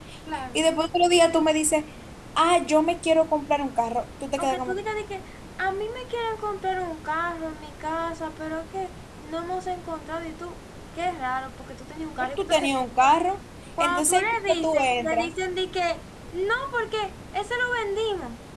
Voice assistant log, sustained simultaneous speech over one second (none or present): present